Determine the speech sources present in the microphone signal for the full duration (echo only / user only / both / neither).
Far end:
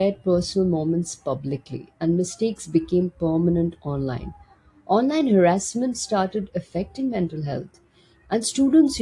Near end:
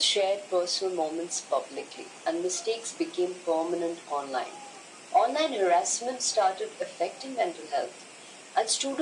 echo only